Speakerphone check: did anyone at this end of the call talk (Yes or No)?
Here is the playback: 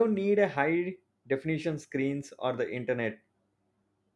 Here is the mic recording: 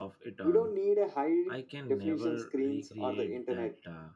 Yes